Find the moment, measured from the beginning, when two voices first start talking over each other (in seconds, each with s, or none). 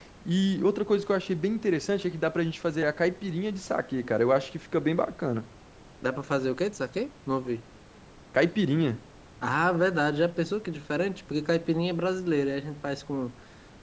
none